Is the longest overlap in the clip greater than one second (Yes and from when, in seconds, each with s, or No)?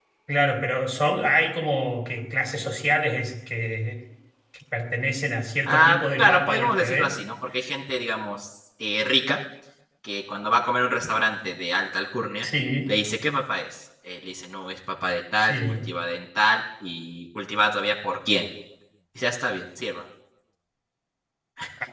Yes, from 5.7 s